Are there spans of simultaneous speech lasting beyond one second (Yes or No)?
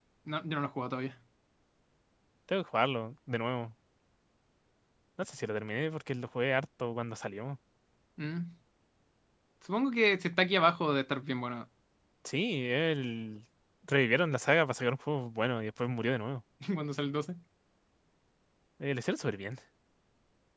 No